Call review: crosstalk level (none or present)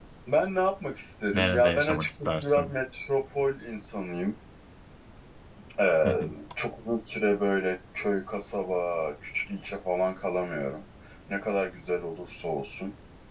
present